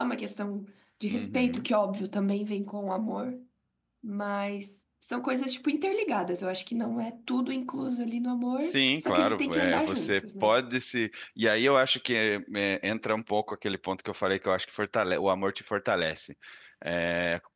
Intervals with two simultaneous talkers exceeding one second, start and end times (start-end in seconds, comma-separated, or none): 8.6-10.5